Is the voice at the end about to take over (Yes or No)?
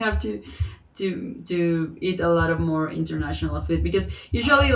No